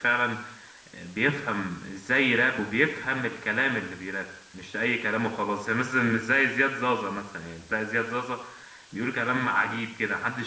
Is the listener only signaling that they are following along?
Yes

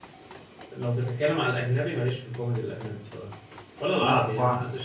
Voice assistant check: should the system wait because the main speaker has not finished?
Yes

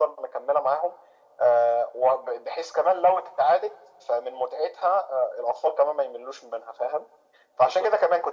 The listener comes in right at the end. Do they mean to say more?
No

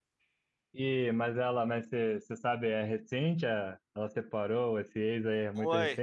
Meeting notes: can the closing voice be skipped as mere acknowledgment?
No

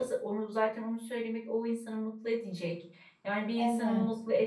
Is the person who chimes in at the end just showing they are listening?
Yes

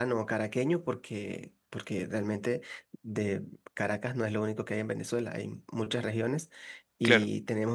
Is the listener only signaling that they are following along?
Yes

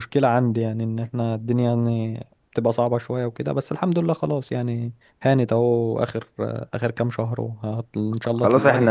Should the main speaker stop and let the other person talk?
Yes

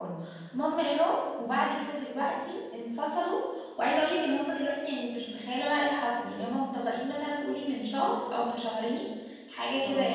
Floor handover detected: No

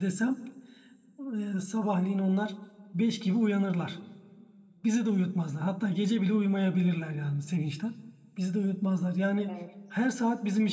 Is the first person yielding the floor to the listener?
No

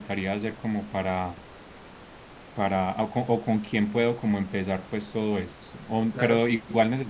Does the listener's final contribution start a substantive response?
No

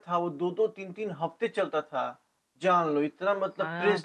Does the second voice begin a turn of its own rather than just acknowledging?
Yes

